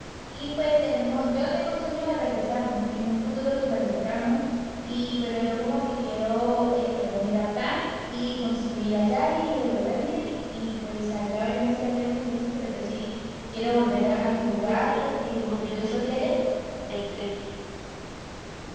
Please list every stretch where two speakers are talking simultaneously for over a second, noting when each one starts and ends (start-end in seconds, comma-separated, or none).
14.6-16.3